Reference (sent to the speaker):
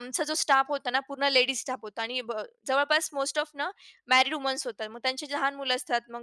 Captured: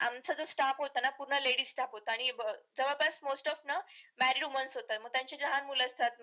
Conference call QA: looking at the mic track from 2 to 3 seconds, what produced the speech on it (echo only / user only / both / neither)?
echo only